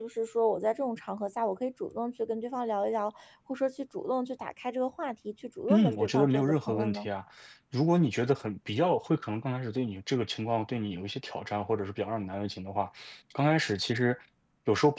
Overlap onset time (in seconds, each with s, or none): 5.7 s